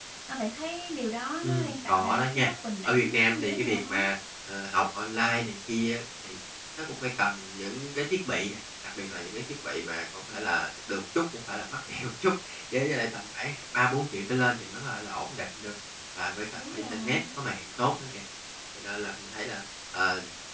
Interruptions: present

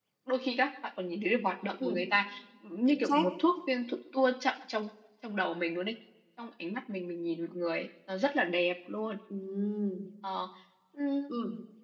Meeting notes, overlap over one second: none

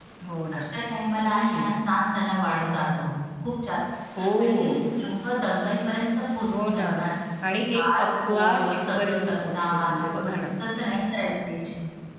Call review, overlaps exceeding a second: present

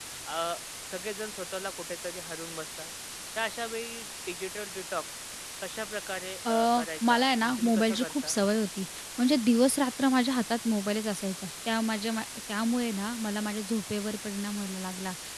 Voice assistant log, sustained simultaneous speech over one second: present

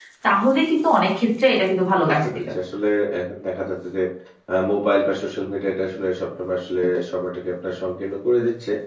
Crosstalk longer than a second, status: none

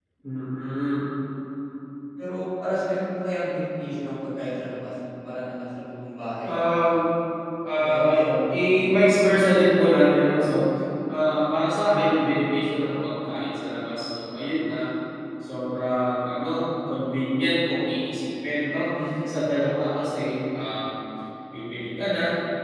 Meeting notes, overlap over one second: present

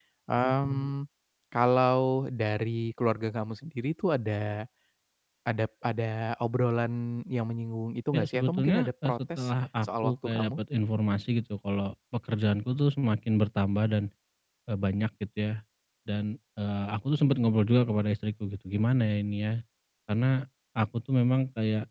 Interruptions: present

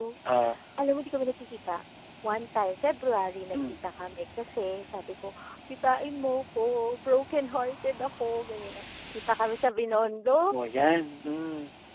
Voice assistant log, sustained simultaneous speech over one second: none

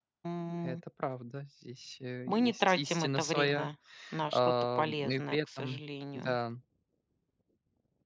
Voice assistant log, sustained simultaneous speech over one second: present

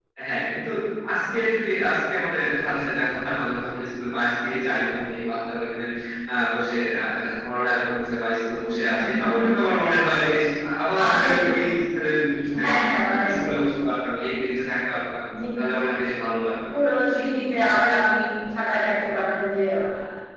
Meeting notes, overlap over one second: none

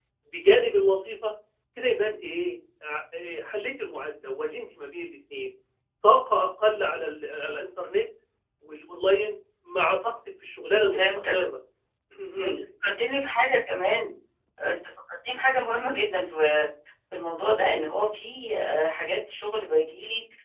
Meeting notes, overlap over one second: none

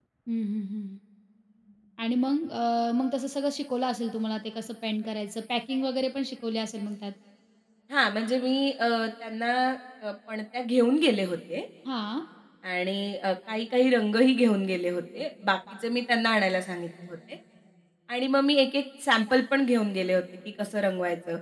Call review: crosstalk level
none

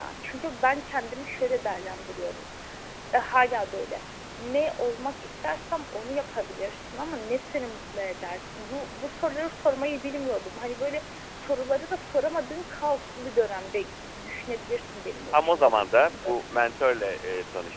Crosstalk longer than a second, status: present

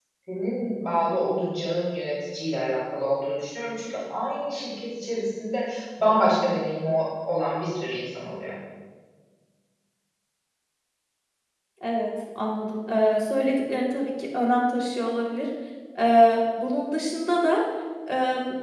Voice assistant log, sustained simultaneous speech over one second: none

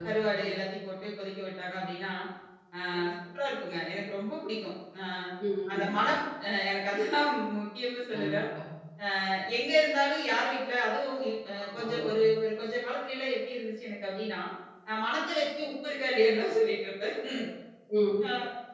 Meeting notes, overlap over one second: none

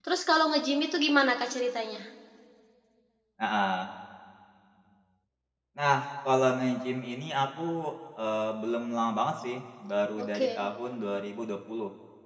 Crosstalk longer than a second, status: none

